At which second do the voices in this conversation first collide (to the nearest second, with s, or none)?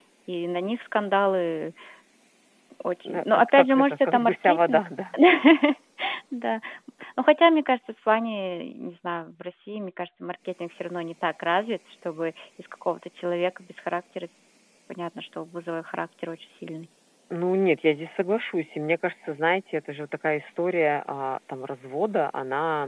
3 s